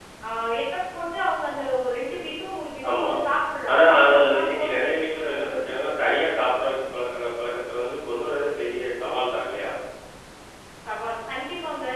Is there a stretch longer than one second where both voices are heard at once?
Yes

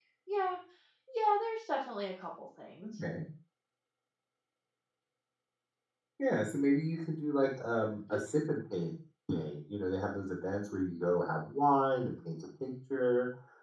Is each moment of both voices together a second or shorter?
Yes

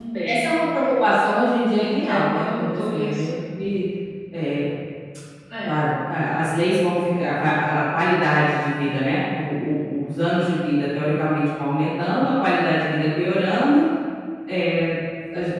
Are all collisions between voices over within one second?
No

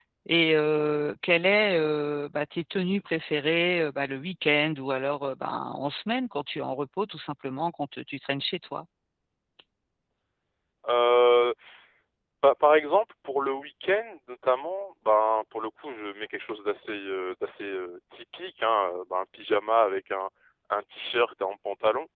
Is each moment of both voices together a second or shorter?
Yes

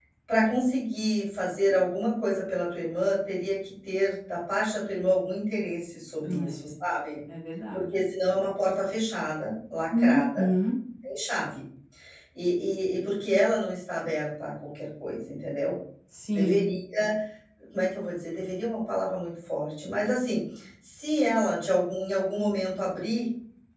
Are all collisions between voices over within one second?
Yes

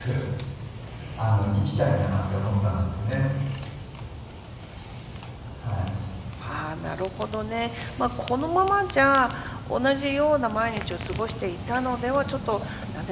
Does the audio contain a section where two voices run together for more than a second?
No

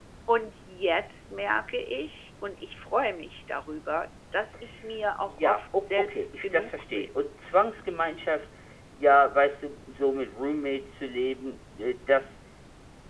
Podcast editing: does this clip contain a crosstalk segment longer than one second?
Yes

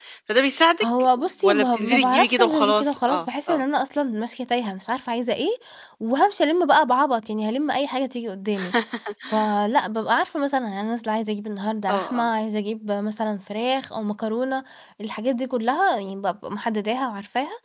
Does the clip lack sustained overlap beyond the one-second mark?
No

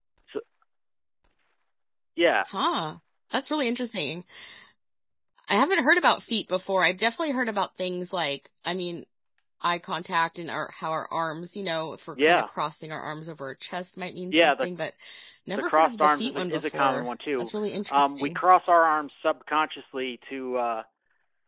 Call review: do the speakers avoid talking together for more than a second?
No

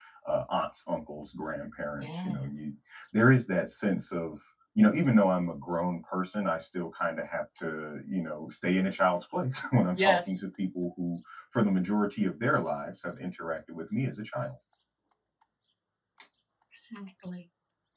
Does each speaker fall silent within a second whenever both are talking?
Yes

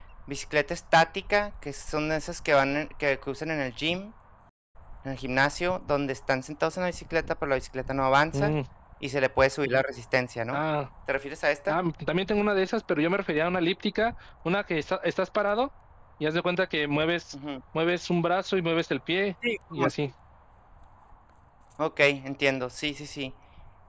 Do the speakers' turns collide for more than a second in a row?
No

